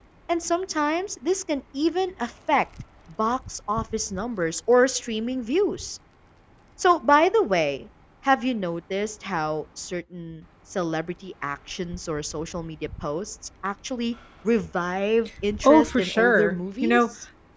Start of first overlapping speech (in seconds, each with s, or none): 15.5 s